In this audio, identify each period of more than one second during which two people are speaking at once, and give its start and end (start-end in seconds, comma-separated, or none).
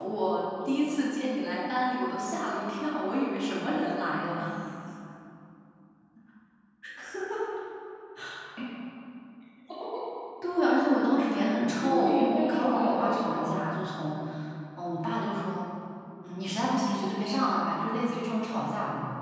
11.8-13.5